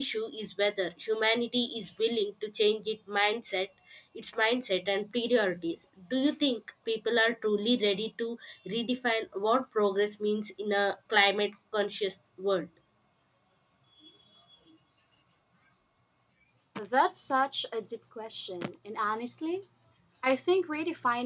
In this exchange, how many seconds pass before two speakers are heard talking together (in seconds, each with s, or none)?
none